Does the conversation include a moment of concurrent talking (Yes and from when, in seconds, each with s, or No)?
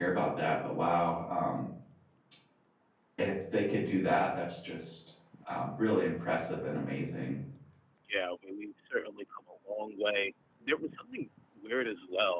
No